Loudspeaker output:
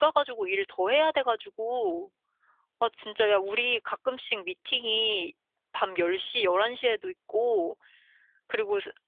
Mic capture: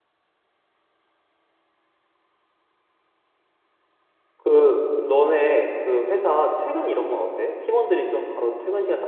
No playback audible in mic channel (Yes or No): Yes